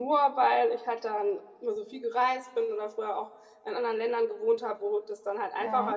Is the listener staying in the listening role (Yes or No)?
Yes